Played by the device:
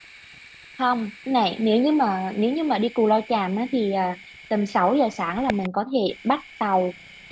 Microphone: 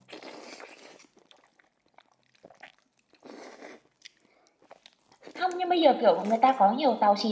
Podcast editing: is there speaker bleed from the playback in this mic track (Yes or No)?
No